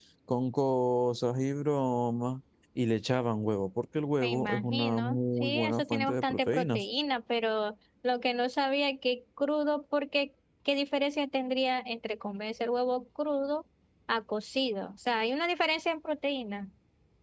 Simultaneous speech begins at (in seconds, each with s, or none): 4.2 s